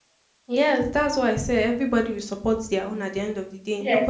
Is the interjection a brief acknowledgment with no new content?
No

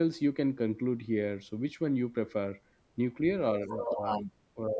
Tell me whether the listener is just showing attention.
No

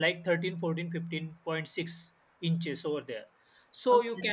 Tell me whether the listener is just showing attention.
Yes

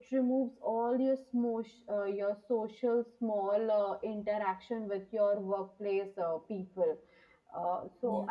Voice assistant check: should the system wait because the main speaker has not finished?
Yes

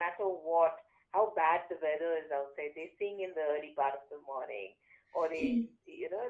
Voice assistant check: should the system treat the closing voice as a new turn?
No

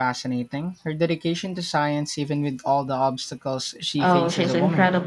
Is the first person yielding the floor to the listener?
Yes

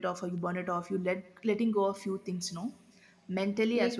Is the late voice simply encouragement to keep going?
No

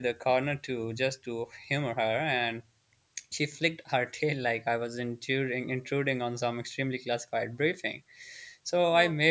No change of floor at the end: Yes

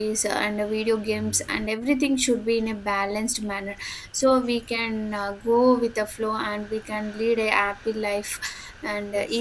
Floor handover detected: No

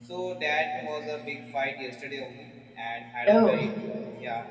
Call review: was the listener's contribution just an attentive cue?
Yes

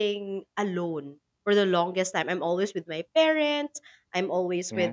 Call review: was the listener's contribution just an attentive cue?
Yes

